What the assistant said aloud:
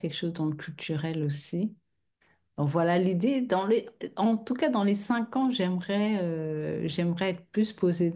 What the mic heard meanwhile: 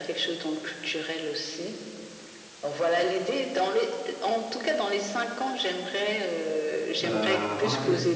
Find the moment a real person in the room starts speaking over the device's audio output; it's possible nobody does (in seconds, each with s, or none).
7.0 s